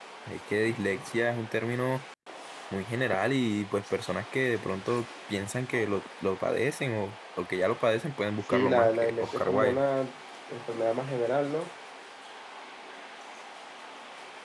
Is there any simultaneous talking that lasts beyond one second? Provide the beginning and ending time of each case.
8.5-9.8

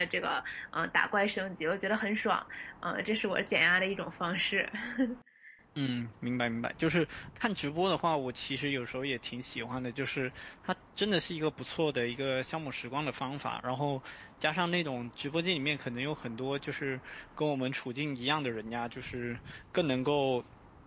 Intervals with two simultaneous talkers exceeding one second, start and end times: none

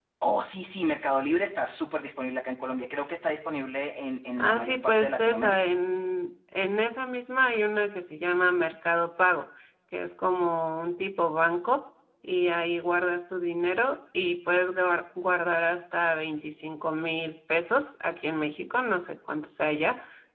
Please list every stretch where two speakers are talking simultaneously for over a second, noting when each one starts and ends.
4.4-5.7

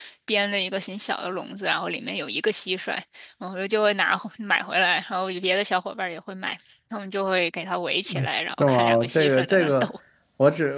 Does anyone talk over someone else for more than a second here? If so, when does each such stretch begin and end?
8.6-9.9

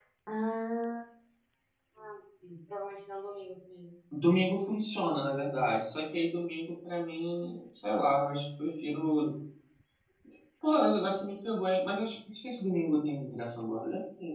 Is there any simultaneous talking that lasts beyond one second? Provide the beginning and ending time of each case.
none

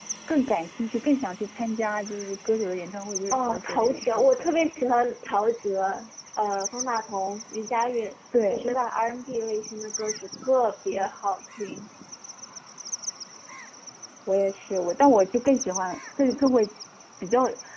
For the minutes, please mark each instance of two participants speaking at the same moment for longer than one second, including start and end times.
3.3-4.6

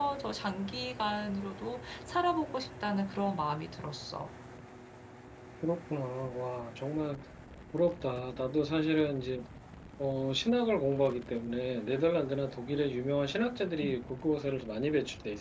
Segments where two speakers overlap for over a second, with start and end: none

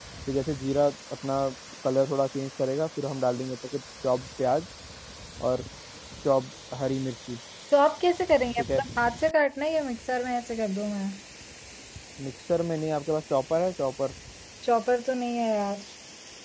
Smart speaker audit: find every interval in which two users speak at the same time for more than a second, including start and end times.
none

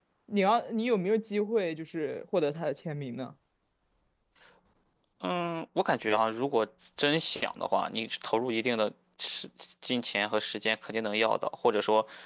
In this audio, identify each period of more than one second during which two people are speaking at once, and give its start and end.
none

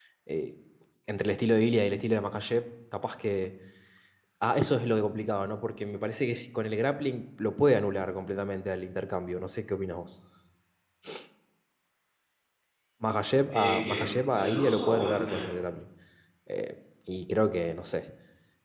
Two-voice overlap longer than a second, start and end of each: 13.5-15.4

